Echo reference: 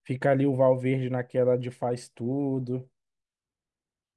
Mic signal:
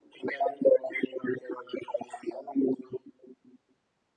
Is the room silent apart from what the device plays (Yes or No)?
Yes